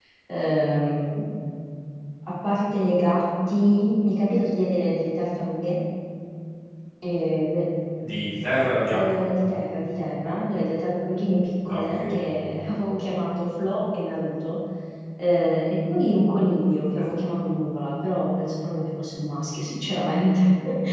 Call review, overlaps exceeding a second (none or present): none